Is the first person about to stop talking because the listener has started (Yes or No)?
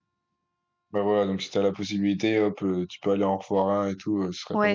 Yes